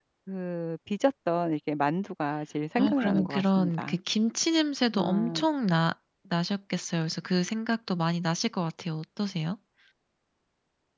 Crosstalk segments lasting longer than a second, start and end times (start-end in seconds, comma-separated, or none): 2.8-4.0